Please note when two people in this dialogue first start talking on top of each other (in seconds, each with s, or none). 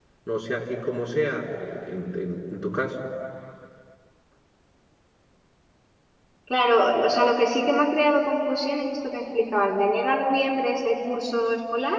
none